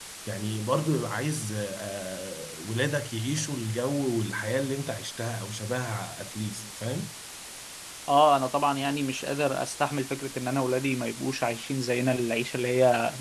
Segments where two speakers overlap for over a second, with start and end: none

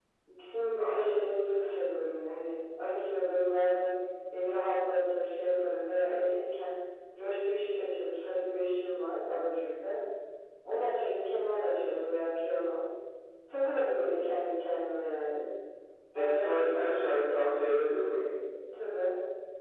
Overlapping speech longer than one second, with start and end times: 16.1-17.5

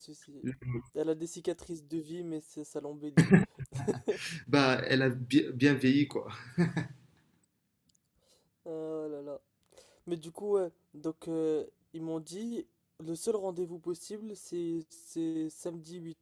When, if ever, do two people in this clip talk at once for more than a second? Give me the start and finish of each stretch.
none

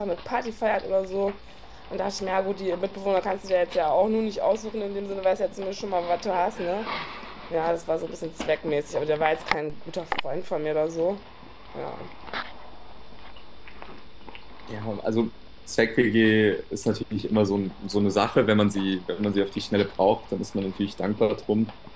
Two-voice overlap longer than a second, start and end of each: none

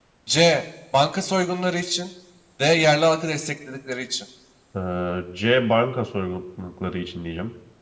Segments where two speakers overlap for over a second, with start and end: none

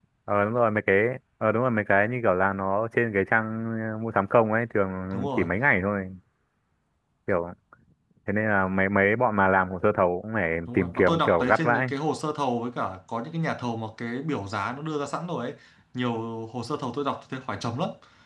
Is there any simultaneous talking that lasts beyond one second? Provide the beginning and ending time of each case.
10.7-11.9

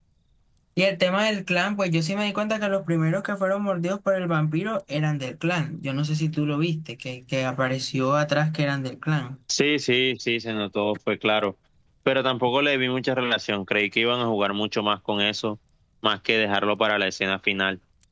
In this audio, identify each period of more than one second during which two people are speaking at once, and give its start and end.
none

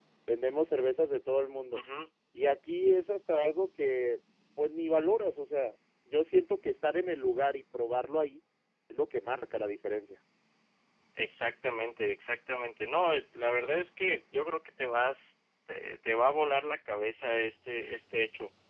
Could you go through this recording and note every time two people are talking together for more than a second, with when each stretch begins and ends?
none

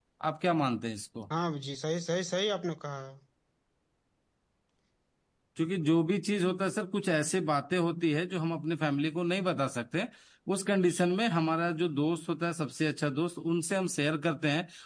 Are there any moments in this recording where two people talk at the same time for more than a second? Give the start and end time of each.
none

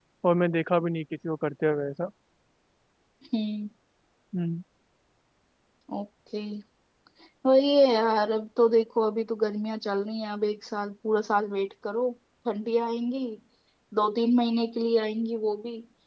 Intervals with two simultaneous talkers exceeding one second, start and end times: none

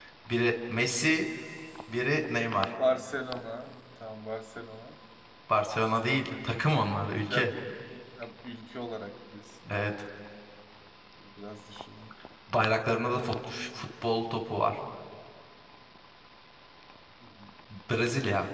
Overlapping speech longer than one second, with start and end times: none

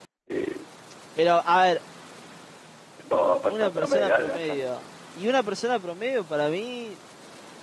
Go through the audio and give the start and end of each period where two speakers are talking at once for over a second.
3.5-4.7

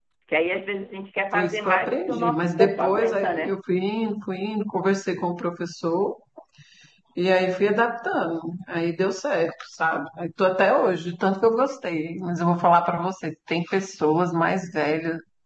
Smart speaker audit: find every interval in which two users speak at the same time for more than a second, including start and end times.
1.3-3.6

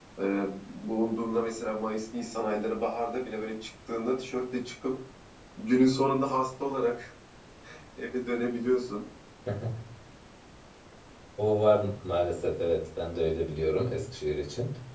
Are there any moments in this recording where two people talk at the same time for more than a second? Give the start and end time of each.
none

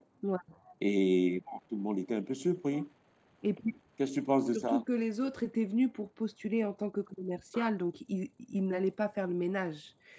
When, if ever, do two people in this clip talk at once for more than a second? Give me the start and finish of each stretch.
none

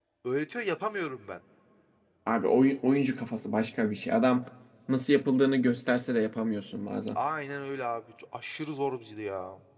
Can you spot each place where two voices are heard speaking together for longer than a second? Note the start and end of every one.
none

